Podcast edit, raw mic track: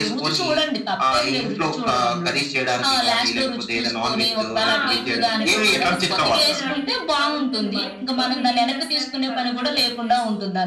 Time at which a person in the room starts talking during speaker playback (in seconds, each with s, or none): 4.7 s